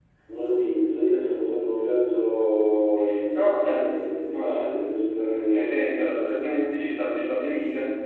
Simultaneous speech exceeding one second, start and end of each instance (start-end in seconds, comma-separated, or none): 3.3-5.8